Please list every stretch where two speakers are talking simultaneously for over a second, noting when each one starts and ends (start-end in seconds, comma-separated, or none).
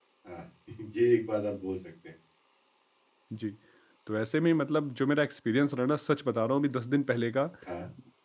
none